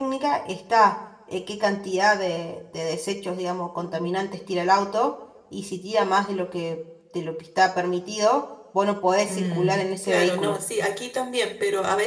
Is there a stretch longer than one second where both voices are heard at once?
Yes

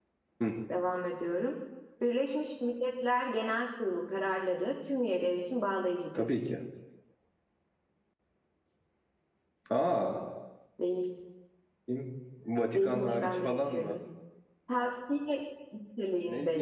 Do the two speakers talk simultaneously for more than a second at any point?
Yes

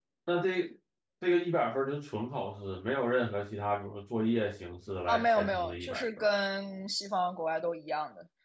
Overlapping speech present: Yes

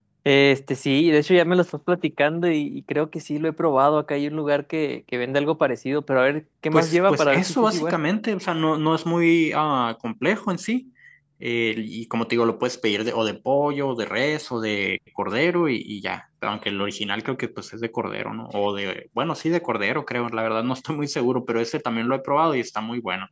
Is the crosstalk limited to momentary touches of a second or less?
No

